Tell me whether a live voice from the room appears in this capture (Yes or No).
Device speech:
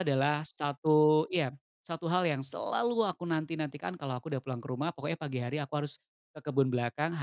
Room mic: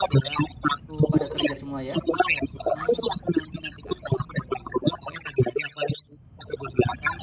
Yes